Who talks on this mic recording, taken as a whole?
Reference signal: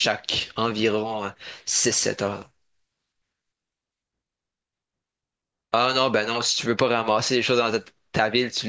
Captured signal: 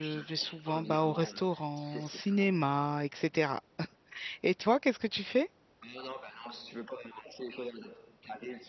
both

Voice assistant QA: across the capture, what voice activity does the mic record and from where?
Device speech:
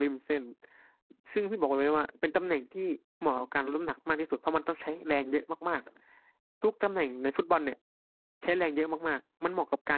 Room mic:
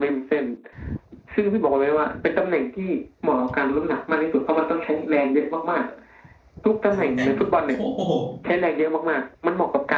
both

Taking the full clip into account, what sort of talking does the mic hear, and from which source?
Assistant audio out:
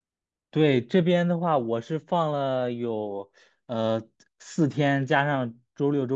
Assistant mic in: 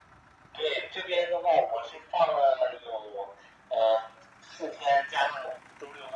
echo only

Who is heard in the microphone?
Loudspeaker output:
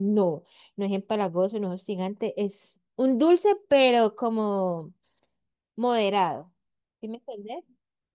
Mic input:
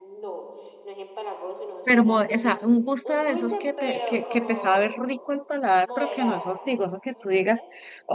both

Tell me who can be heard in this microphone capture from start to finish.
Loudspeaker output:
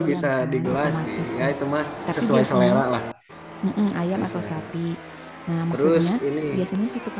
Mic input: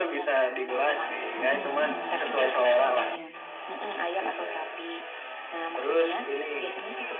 both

